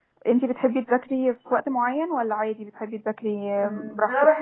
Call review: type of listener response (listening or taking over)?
taking over